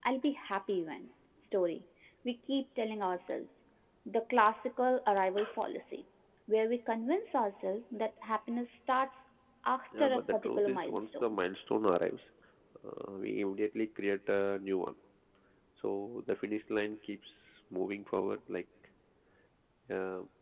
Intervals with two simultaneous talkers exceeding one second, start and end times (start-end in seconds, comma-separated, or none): 10.0-11.4